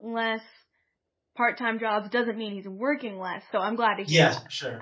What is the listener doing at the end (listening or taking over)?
taking over